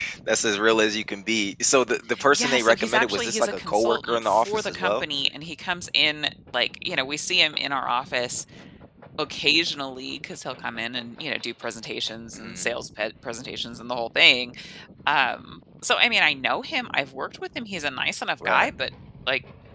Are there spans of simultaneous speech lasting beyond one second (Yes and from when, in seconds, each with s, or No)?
Yes, from 2.3 s